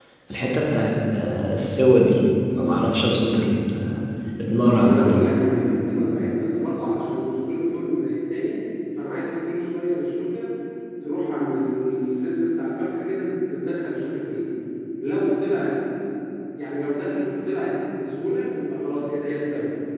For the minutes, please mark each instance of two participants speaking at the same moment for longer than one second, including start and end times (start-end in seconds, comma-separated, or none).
none